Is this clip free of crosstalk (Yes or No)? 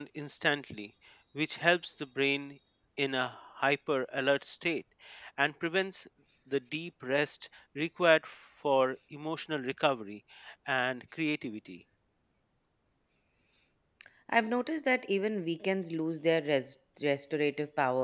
Yes